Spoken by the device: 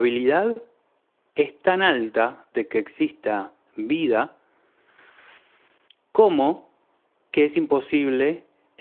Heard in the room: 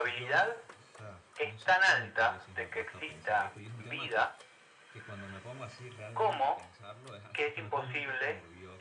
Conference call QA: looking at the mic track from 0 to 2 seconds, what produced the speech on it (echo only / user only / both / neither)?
both